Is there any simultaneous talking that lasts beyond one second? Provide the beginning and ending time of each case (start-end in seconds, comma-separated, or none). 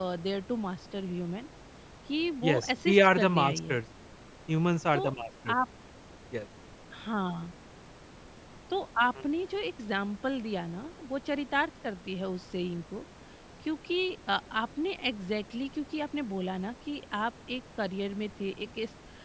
2.5-3.8